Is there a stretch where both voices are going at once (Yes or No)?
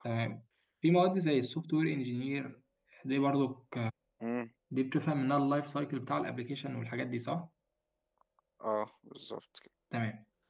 No